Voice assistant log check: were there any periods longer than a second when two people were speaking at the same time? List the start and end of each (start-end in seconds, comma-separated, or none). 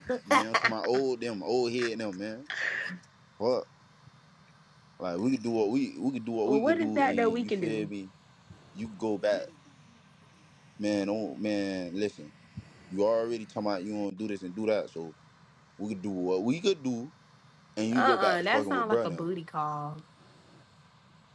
6.5-7.9, 17.9-19.3